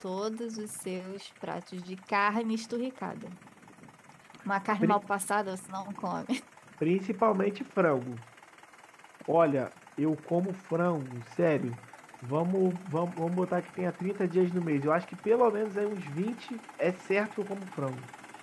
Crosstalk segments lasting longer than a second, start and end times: none

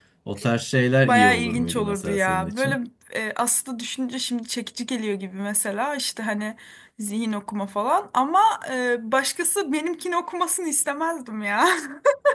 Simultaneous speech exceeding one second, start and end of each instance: 1.0-2.8

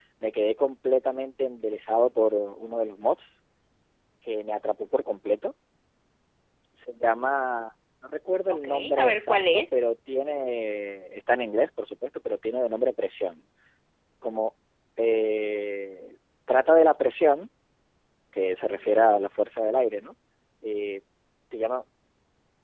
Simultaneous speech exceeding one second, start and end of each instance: 8.5-9.8

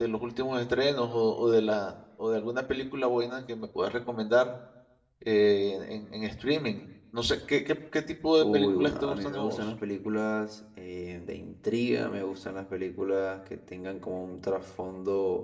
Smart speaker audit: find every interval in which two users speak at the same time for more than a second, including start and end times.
8.4-9.7

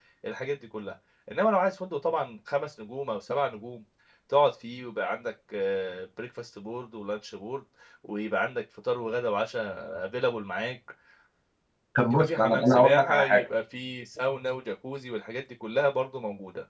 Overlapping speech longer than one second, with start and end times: 12.1-13.4

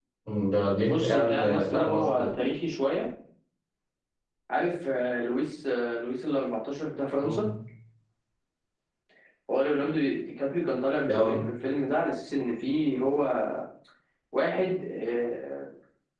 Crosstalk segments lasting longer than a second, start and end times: 0.8-2.3

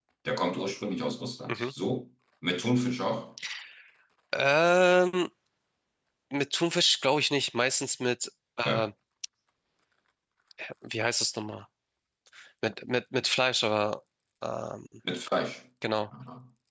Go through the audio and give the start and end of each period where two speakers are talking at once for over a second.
none

